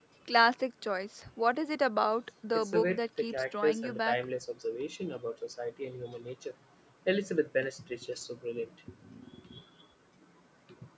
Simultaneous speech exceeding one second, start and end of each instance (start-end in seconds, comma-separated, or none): 2.5-4.2